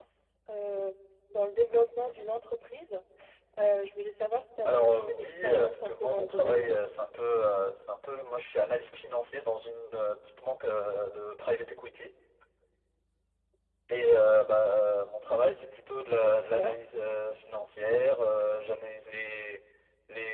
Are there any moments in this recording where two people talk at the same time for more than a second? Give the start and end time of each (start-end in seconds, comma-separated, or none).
4.6-6.7